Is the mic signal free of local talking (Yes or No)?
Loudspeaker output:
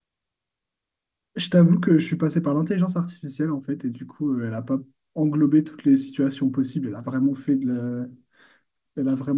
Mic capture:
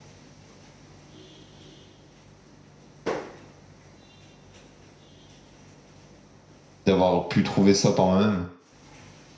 No